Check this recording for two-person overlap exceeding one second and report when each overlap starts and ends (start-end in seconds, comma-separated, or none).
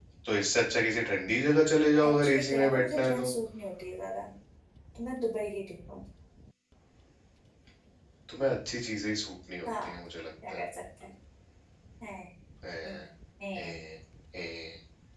2.0-3.3